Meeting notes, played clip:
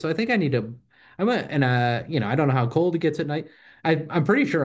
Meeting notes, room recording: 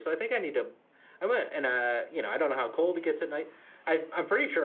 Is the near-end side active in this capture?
No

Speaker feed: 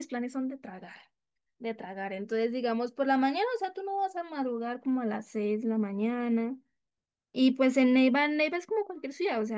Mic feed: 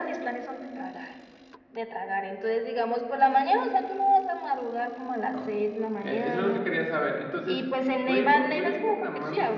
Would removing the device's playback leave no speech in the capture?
No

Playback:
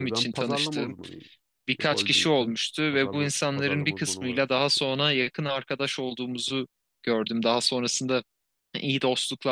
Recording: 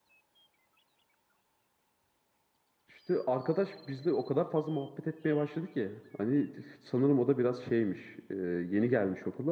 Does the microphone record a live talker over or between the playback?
Yes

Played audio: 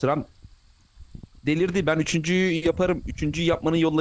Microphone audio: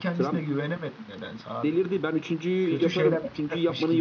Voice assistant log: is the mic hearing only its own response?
No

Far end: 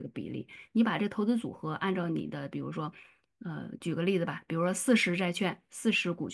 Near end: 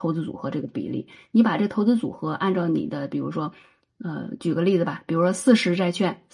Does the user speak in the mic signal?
No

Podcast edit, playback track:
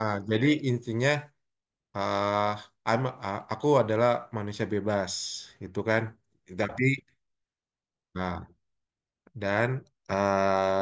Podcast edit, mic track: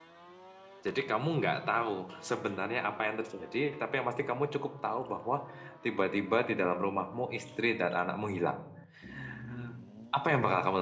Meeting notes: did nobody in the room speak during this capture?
No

